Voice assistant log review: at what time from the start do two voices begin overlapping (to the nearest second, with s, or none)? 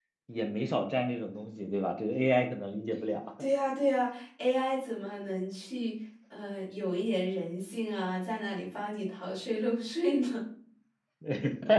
none